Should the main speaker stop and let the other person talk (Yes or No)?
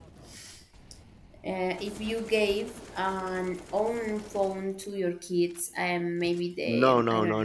Yes